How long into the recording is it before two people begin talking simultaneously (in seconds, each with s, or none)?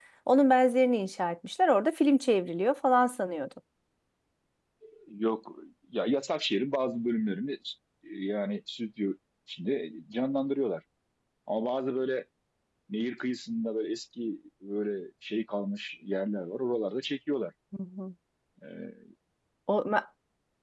none